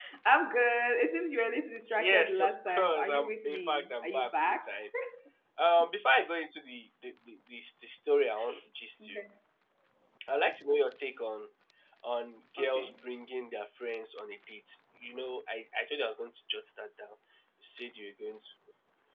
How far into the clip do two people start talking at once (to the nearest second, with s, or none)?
2 s